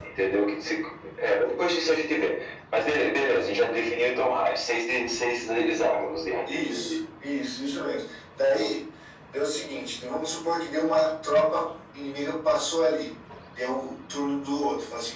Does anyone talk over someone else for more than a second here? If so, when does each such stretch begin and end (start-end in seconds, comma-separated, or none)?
none